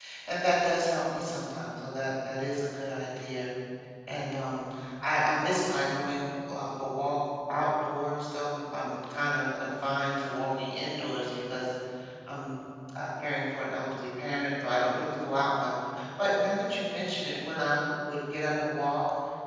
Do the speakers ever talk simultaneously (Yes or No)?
No